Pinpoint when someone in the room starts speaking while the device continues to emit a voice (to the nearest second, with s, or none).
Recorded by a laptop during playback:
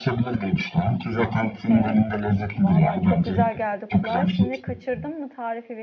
2 s